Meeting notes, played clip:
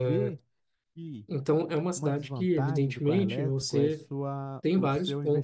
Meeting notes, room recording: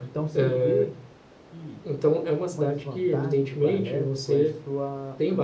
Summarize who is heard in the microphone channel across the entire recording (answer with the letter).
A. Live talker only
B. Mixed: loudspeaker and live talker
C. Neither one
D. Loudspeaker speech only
D